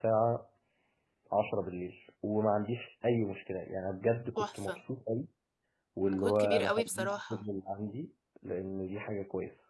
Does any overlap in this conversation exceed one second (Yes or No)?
Yes